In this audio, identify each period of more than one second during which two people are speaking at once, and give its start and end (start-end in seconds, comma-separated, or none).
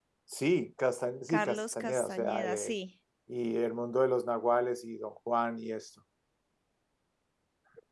1.3-2.8